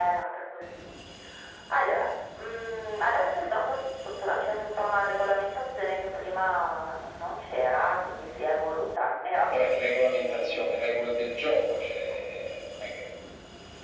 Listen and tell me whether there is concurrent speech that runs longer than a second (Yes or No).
Yes